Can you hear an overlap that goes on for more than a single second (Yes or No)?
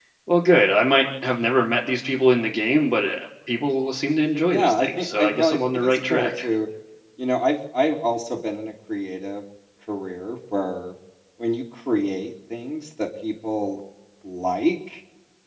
Yes